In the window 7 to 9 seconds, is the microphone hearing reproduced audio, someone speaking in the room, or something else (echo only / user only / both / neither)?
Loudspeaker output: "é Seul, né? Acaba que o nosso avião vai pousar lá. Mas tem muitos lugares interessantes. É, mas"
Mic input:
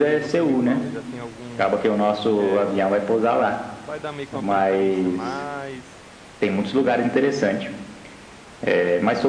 echo only